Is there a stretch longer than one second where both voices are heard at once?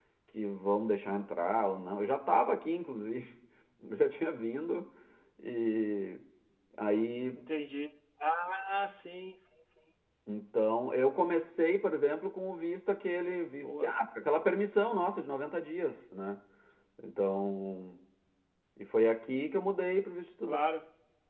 No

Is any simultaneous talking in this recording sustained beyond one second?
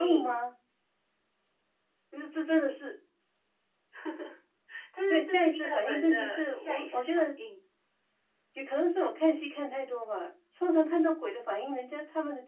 Yes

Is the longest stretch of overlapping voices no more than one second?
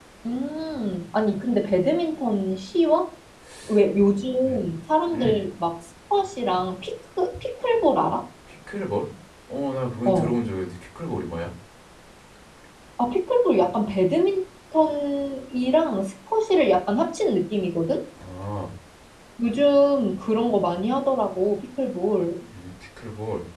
Yes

